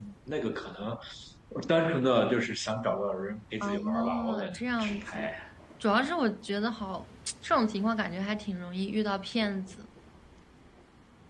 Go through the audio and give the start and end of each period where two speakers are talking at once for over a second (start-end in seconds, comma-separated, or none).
3.6-5.3